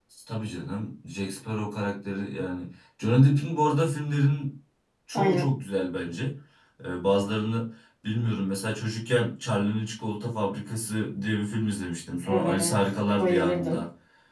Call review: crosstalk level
present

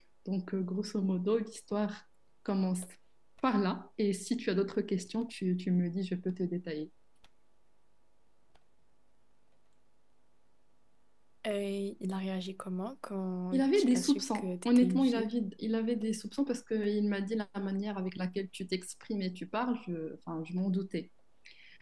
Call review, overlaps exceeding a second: present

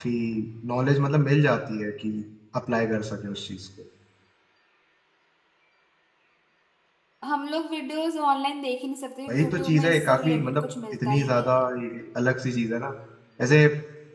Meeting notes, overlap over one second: present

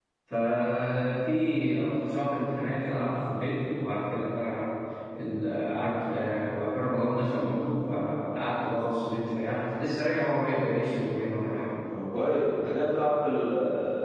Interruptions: none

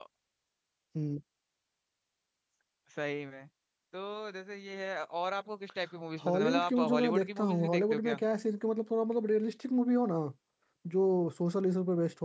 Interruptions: present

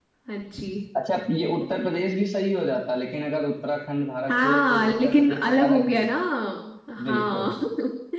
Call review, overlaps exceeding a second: present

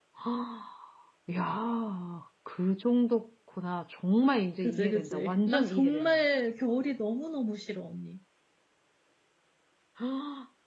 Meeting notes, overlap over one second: present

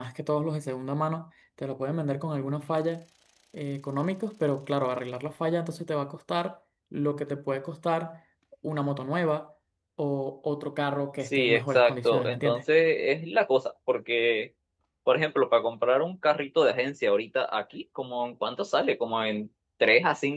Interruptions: present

